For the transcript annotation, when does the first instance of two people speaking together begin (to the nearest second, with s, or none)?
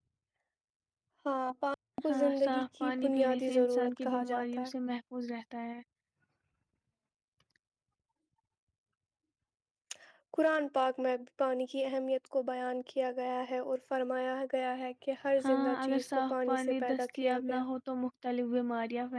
2 s